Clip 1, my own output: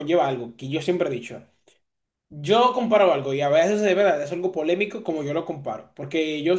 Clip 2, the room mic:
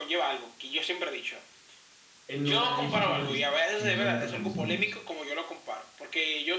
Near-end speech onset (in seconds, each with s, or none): 2.3 s